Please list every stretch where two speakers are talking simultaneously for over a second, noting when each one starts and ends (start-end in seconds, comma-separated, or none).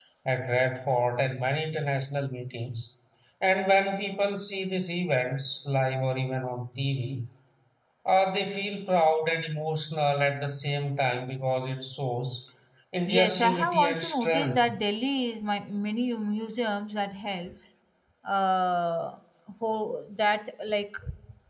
13.1-14.7